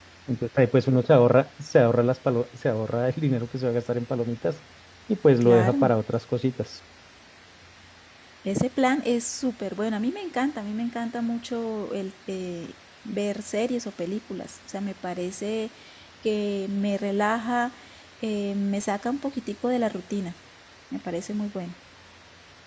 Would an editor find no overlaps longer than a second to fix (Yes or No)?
Yes